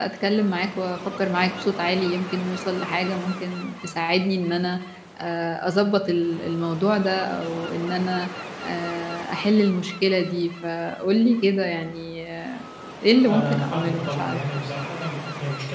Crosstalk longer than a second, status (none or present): present